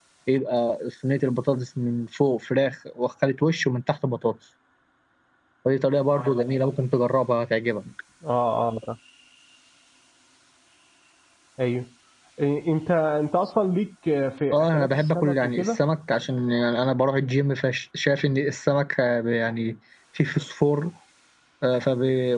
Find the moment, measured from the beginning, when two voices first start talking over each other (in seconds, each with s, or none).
14.5 s